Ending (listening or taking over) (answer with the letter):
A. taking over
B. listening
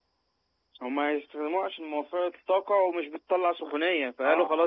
B